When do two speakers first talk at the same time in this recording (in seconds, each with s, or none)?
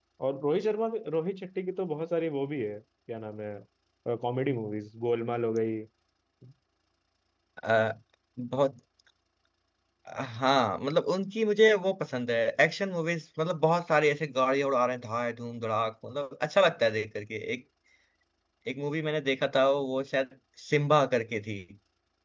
none